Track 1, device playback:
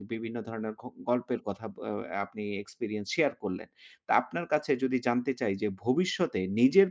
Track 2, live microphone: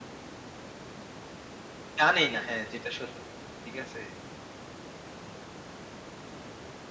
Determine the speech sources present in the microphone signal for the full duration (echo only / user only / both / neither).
user only